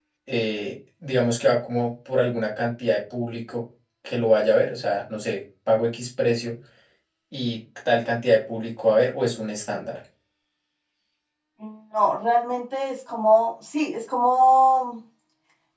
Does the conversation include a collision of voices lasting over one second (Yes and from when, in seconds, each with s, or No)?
No